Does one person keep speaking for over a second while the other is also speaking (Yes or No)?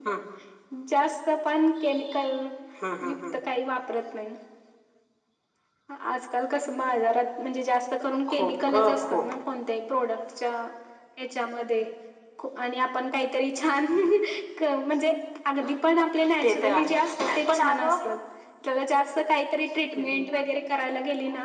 Yes